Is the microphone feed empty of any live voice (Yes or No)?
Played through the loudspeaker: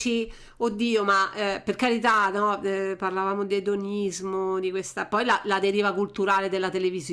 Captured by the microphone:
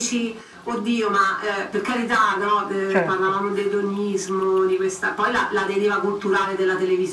No